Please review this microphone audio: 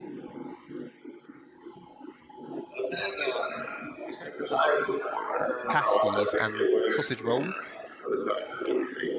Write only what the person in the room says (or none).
pasties and sausage roll.